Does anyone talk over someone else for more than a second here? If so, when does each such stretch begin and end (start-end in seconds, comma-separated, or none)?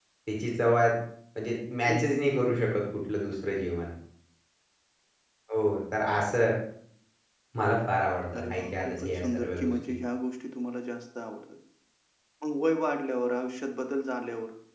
8.4-9.7